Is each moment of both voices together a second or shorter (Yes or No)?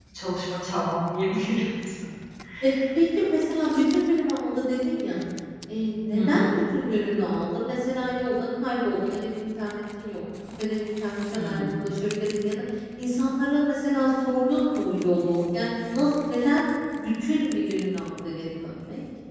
Yes